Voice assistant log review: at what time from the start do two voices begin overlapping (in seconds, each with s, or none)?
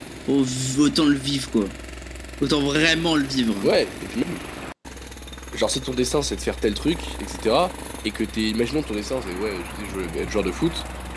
none